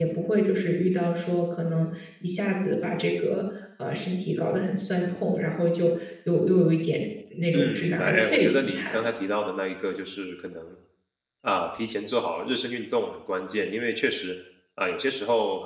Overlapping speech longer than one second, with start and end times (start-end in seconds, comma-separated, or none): 7.5-9.1